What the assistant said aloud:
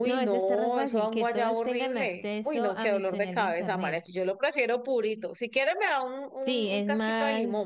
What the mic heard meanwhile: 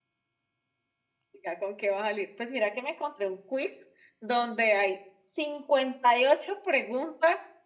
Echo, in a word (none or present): none